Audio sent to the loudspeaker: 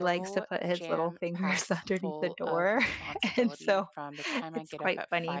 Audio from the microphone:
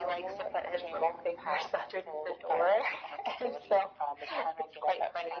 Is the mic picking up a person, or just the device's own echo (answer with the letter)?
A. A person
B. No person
B